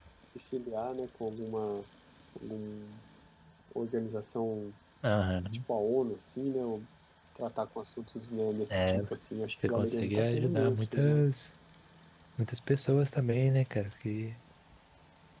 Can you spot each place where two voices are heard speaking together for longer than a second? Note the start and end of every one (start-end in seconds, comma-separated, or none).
9.7-11.2